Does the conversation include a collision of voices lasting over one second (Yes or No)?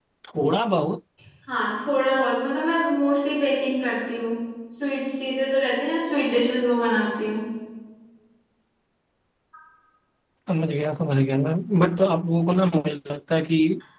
No